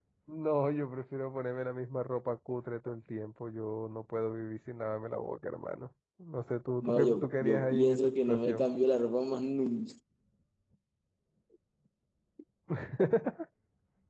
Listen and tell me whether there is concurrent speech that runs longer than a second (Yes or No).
Yes